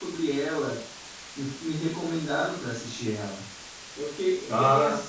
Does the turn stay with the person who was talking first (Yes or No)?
Yes